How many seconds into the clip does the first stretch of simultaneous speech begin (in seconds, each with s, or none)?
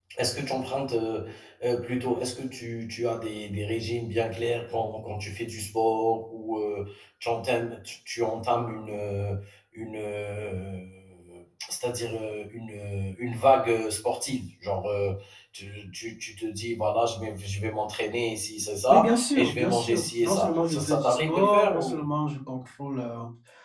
18.9 s